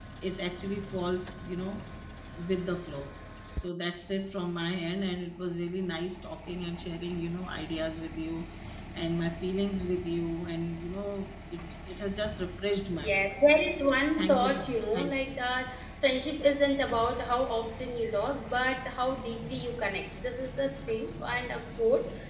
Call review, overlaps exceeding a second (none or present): present